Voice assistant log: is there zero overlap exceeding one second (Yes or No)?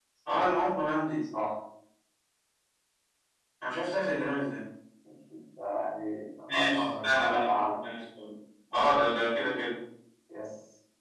No